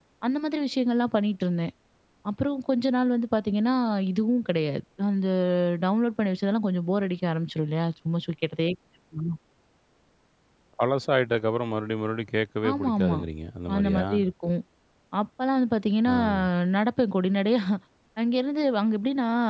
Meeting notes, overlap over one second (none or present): none